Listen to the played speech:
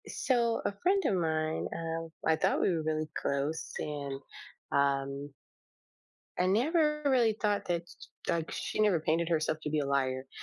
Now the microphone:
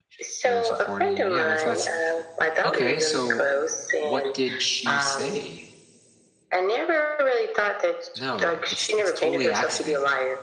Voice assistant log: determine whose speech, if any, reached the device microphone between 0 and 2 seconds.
both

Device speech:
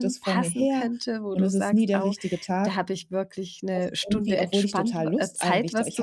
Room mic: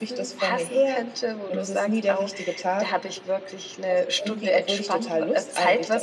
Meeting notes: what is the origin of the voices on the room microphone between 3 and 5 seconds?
echo only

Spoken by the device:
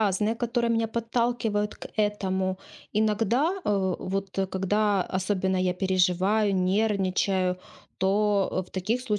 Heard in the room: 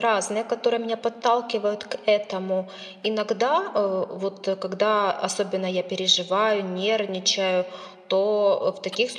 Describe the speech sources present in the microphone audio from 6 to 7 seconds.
echo only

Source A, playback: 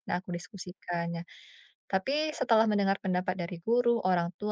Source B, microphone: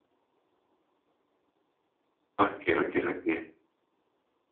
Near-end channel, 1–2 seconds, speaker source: neither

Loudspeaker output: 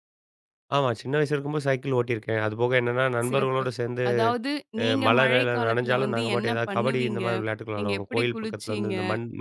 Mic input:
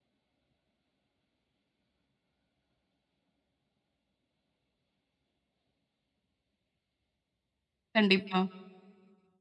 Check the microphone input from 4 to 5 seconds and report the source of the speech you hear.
neither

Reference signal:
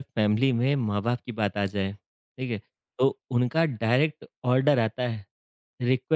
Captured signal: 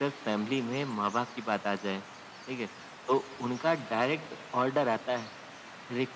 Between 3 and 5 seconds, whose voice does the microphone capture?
echo only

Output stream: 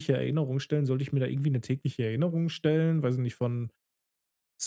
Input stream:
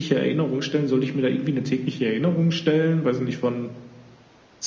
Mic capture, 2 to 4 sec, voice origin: echo only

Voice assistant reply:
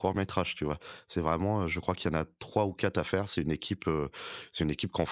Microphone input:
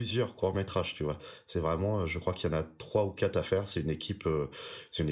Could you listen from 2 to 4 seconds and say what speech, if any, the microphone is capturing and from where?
echo only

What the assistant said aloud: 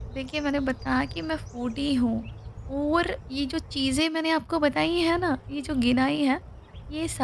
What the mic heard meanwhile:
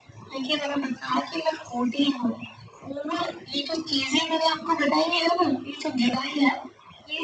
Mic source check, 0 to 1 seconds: echo only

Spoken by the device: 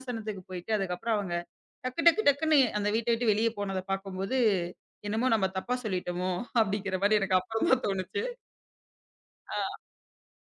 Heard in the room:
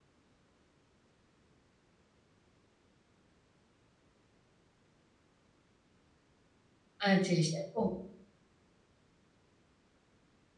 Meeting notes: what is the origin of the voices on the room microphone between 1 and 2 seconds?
neither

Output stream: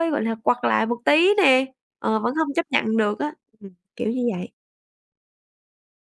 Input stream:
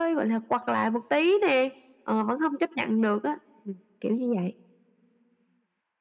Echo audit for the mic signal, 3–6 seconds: echo only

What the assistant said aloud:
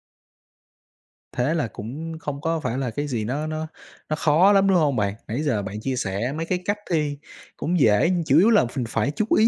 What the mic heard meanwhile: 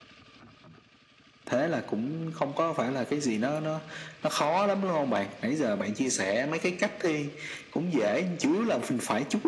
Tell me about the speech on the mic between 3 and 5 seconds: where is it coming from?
echo only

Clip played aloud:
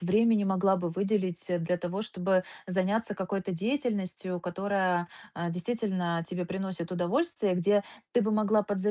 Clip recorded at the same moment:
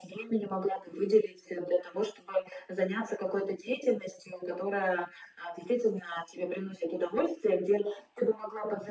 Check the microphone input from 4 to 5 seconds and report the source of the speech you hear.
echo only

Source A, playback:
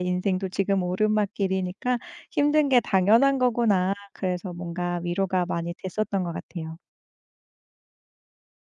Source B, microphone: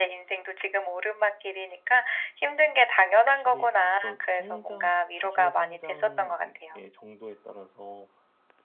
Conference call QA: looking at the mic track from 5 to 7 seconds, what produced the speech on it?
both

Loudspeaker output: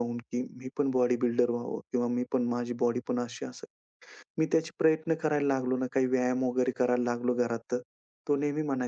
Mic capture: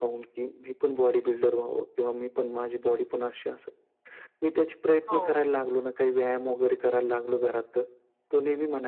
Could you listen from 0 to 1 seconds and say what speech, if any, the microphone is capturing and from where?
echo only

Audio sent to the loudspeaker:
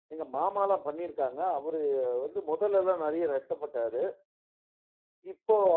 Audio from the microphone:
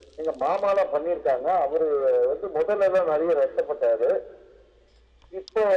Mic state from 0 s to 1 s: echo only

